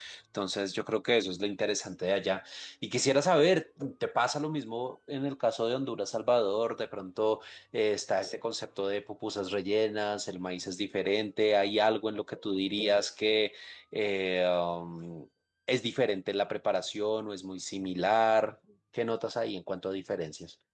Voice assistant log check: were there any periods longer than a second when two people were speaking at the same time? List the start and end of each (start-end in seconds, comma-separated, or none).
none